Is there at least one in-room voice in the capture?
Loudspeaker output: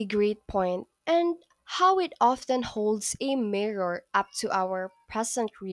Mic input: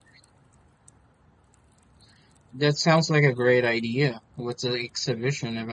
Yes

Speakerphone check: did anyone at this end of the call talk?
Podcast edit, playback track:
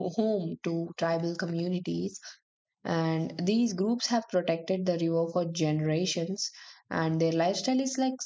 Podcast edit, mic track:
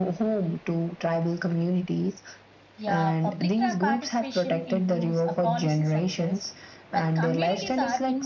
Yes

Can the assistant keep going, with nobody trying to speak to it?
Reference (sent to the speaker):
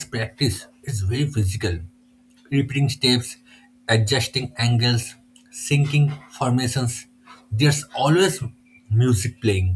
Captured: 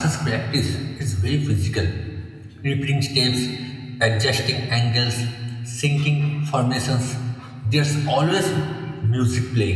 Yes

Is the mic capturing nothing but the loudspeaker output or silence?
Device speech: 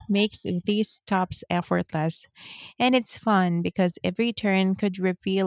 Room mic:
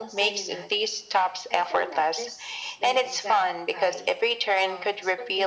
No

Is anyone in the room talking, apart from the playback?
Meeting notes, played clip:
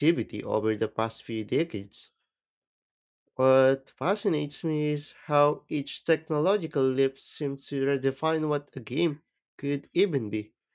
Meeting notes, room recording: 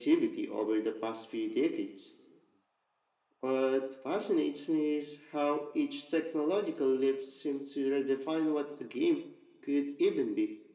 No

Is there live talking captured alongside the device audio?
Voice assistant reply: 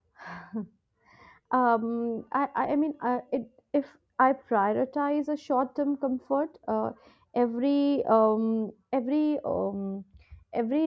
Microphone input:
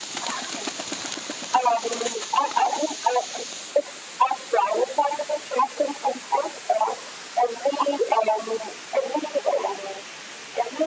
No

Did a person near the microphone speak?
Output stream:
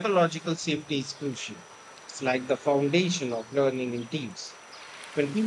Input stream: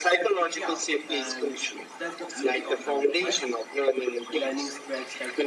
Yes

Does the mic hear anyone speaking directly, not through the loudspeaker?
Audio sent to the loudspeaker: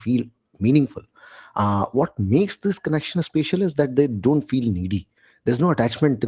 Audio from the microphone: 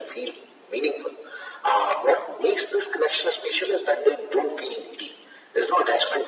No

